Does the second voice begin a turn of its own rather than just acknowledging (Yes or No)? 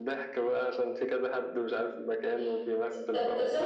Yes